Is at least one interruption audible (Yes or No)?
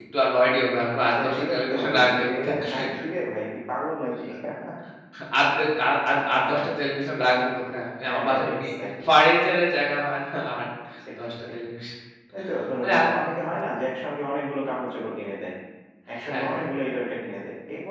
Yes